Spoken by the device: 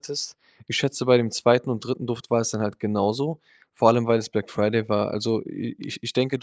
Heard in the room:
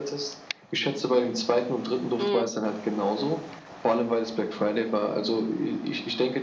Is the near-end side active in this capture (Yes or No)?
Yes